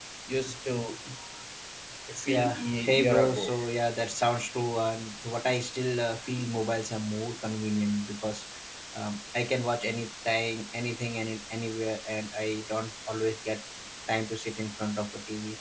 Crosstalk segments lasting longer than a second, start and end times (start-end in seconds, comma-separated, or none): 2.3-3.5